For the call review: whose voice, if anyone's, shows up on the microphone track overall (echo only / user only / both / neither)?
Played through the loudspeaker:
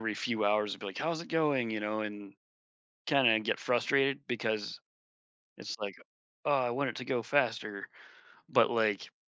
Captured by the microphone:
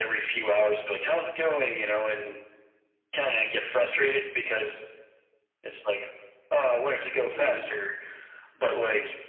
both